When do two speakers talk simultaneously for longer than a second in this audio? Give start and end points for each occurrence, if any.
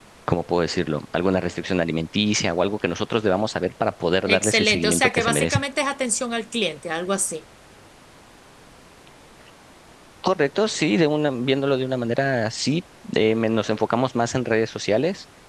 4.3-5.6

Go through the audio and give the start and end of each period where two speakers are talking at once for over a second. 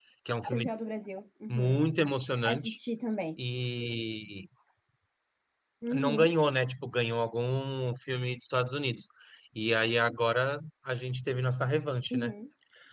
none

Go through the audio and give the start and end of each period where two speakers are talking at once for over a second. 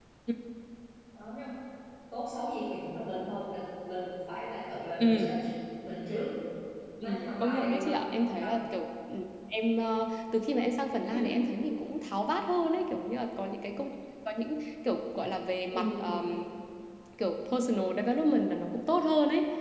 7.0-8.5

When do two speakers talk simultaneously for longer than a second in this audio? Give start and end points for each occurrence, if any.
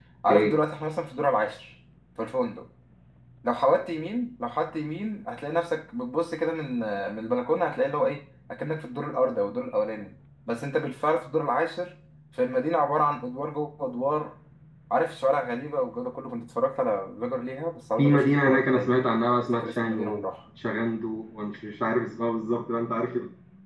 18.0-20.1

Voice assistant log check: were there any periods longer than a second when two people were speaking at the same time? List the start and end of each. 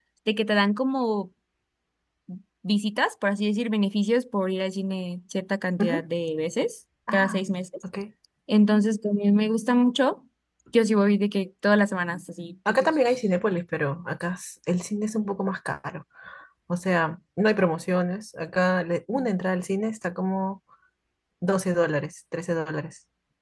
none

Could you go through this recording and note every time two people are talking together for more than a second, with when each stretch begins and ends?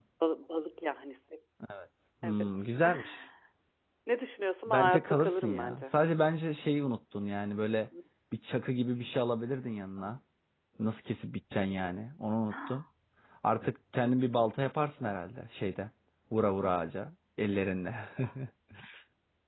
4.7-5.9

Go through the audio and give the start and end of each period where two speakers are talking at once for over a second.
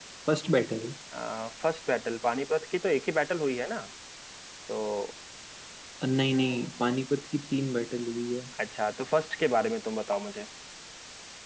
none

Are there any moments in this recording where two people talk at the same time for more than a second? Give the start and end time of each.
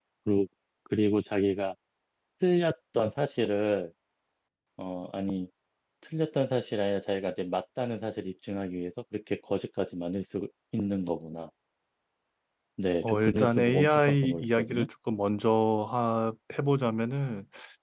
13.0-14.9

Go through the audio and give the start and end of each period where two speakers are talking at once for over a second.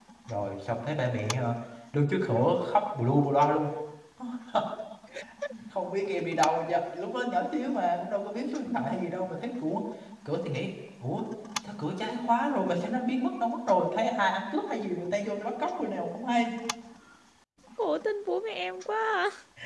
none

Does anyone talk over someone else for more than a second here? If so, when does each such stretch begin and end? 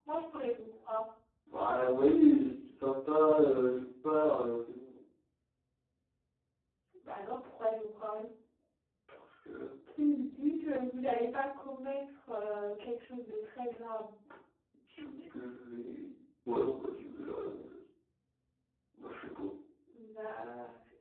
none

